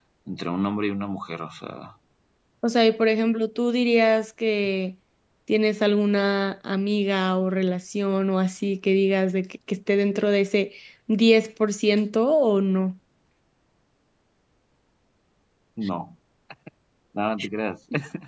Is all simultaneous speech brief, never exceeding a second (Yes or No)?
Yes